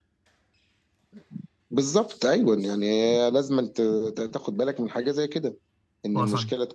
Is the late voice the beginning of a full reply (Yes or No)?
No